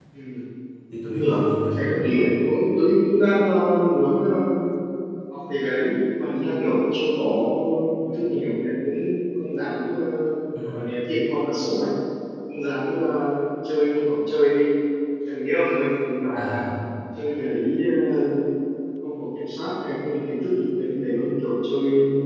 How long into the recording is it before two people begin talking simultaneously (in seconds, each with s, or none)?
1.1 s